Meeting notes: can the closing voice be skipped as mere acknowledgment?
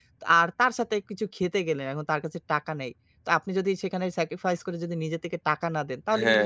No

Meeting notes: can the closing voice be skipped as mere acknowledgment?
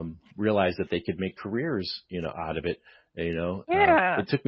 Yes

